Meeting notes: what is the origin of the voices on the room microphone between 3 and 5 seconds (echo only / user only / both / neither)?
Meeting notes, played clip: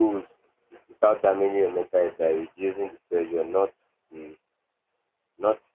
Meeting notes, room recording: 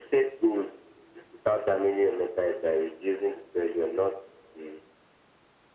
echo only